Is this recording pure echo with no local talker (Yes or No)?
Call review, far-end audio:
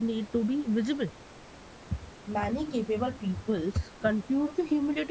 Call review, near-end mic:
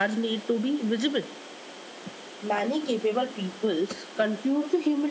Yes